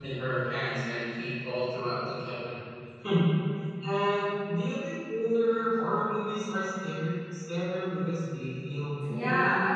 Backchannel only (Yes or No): No